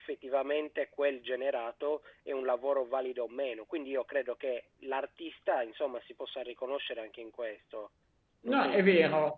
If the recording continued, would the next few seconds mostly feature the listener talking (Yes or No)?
Yes